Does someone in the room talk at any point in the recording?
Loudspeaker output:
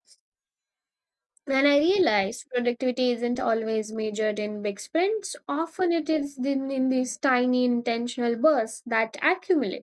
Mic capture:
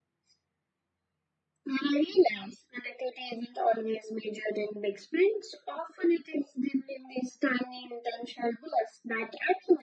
No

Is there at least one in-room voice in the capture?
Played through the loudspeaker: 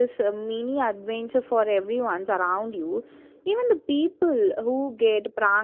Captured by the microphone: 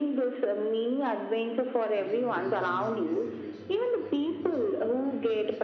Yes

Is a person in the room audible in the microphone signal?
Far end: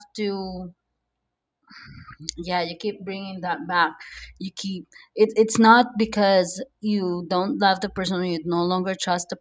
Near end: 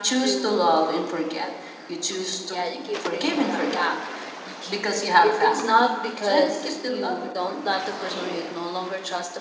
Yes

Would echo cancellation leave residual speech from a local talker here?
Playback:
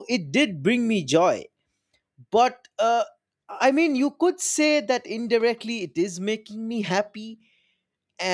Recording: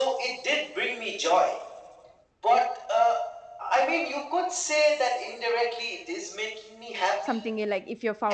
Yes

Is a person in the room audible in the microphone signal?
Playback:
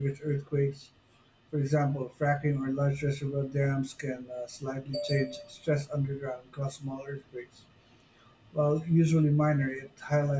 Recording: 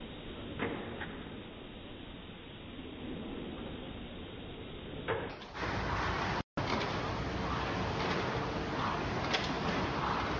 No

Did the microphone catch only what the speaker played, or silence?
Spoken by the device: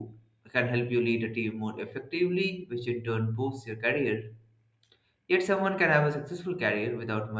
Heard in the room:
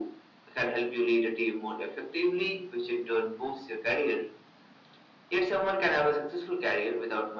Yes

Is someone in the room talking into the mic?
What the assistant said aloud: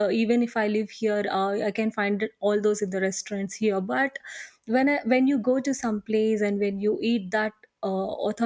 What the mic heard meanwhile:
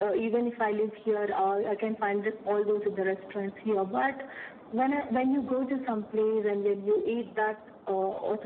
No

